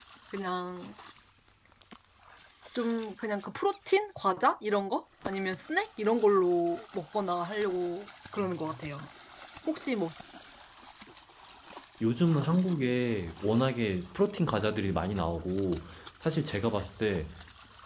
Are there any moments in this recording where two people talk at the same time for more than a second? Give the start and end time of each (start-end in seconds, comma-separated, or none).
none